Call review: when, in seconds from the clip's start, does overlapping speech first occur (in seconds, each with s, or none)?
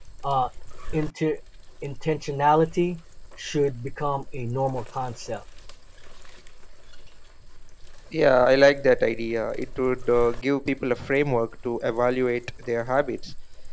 none